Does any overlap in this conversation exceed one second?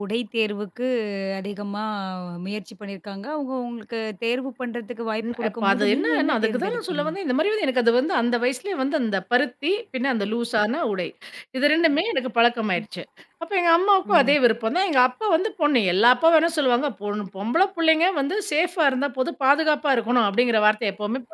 Yes, from 5.2 s

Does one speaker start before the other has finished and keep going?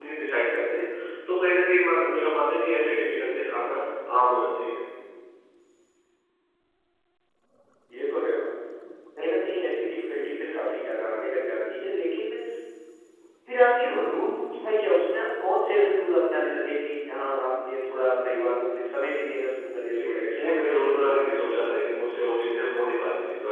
Yes, from 19.8 s

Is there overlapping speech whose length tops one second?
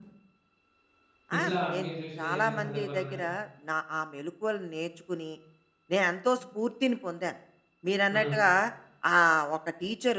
Yes, from 1.4 s

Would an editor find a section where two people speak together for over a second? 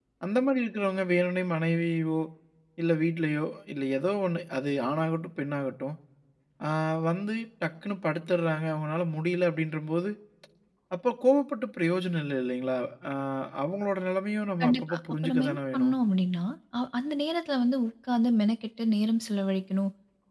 Yes, from 14.6 s

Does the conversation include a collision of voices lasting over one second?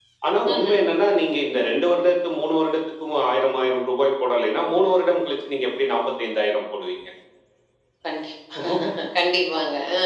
No

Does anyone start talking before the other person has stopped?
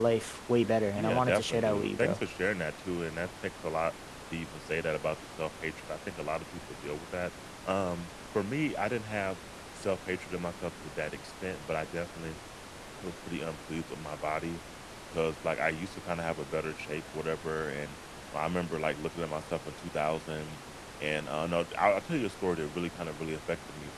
Yes, from 1.0 s

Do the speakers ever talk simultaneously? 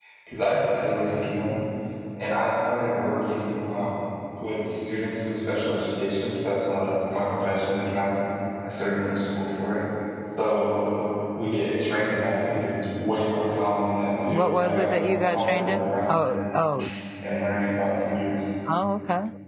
Yes, from 14.3 s

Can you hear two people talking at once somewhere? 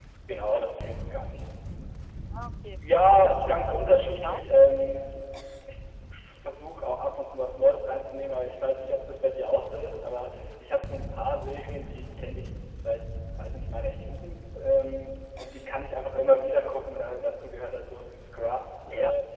Yes, from 3.2 s

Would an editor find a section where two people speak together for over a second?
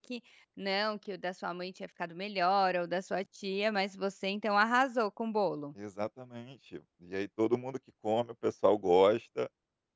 No

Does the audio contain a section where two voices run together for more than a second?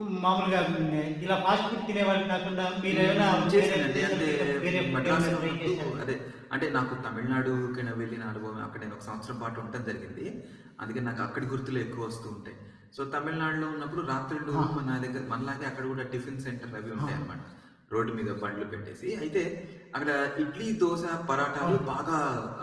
Yes, from 2.9 s

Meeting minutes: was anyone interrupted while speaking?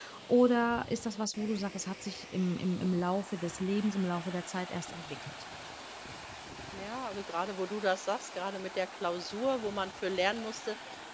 No

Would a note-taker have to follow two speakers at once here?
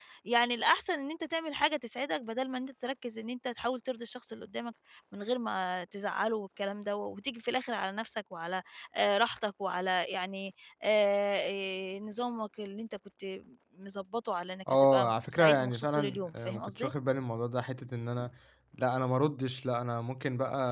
Yes, from 14.7 s

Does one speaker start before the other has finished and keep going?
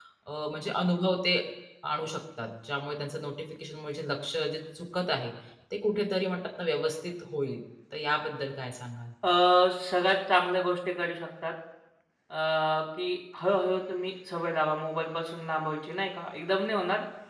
No

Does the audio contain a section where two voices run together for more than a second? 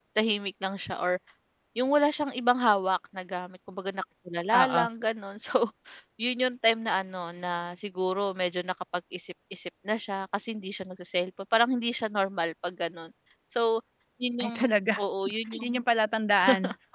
No

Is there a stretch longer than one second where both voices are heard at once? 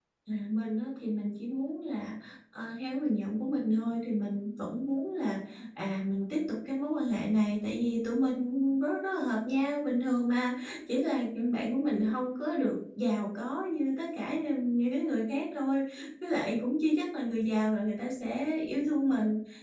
No

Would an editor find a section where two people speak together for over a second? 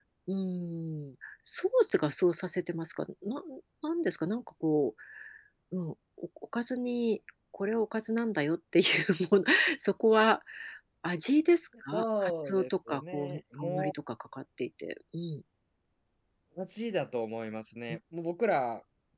Yes, from 11.9 s

